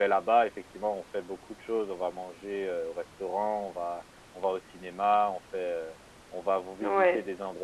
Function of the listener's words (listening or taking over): listening